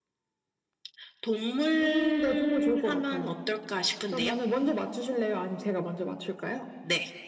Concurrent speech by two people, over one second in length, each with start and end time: 1.8-3.3

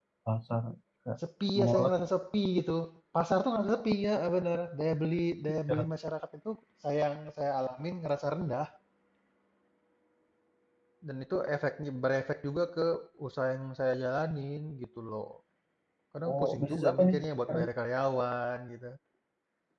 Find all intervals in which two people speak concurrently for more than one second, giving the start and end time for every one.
16.3-17.6

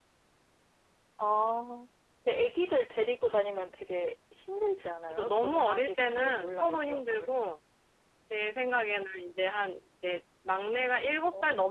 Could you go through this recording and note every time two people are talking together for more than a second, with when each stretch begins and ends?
5.1-7.3

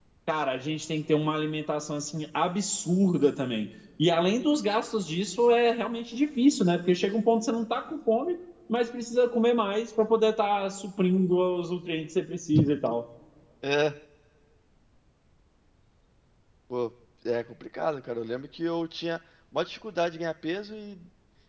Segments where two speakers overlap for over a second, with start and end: none

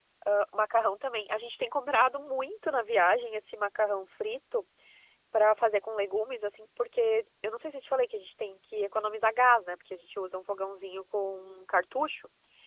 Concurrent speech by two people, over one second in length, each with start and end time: none

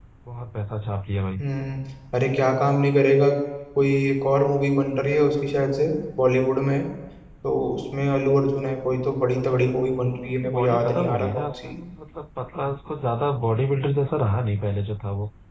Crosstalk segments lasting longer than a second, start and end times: 10.2-11.7

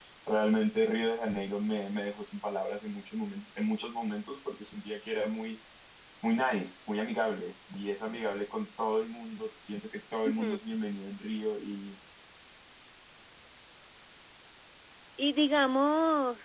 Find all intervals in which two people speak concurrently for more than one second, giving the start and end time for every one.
none

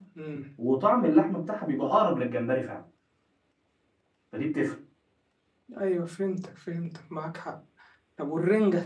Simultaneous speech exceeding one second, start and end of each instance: none

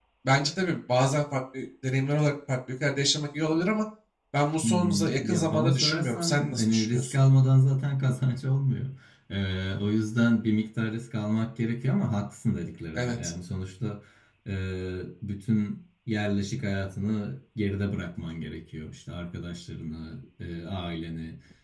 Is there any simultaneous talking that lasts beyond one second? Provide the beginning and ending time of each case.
4.6-7.2

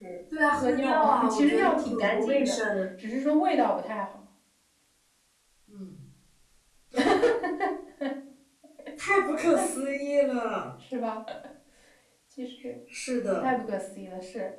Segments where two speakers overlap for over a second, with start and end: 0.6-2.6

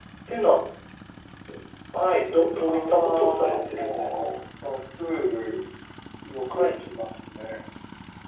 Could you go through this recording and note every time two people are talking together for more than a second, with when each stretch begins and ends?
2.4-4.1

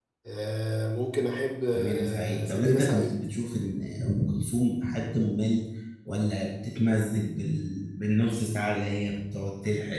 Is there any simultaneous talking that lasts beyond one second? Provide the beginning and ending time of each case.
1.7-3.2

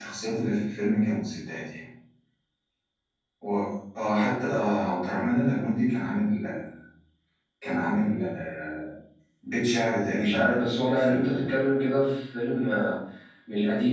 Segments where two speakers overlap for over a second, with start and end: 10.1-11.4

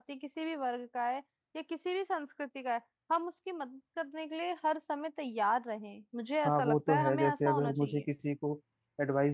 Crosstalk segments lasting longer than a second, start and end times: 6.5-8.0

